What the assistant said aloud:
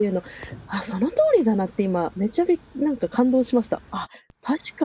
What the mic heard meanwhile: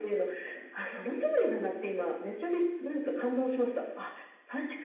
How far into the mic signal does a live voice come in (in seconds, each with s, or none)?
none